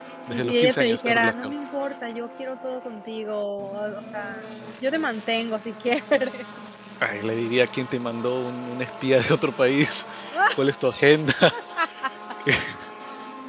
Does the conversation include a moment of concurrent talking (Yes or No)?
Yes